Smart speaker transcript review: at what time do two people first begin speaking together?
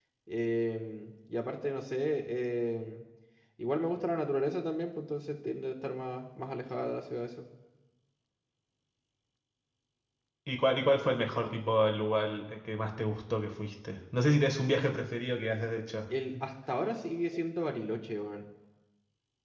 none

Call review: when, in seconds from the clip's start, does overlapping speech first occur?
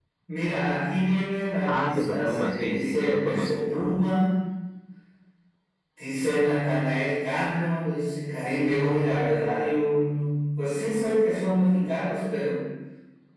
1.7 s

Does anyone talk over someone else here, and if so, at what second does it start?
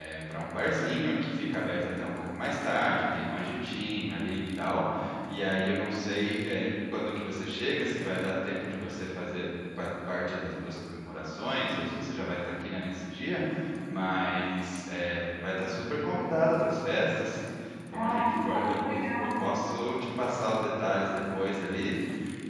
17.9 s

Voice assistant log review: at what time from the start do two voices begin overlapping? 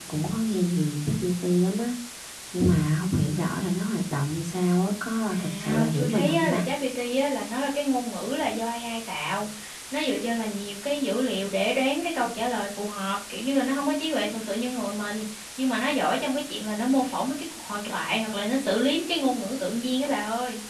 5.3 s

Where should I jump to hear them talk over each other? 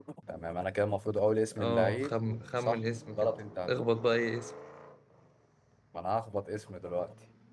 1.5 s

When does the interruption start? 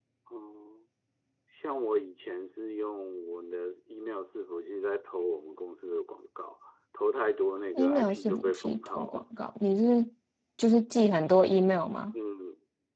7.7 s

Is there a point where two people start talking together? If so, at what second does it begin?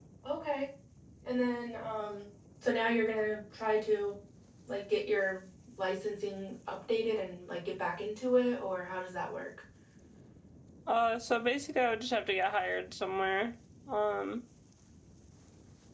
none

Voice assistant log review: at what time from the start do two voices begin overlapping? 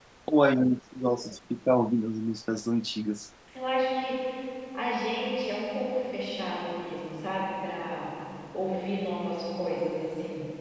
none

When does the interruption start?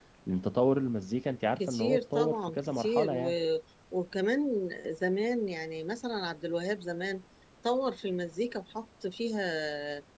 1.6 s

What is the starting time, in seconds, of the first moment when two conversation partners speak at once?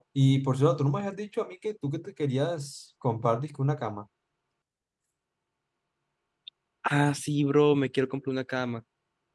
none

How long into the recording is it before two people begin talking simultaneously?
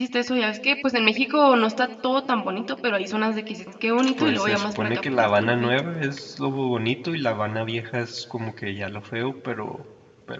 4.0 s

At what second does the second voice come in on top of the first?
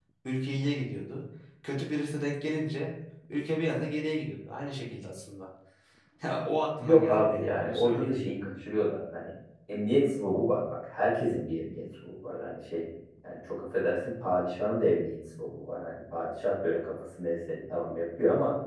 6.8 s

